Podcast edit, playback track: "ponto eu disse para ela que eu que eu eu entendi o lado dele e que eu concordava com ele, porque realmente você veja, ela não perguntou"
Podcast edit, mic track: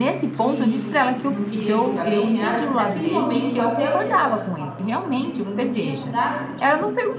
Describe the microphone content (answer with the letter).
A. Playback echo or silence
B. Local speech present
B